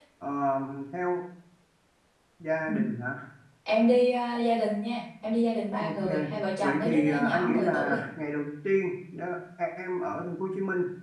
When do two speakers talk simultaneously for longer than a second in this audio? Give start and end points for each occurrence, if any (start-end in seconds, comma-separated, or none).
6.6-8.0